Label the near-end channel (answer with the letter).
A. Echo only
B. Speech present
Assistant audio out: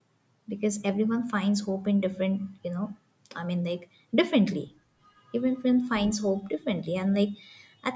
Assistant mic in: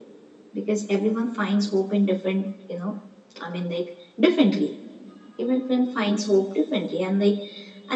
A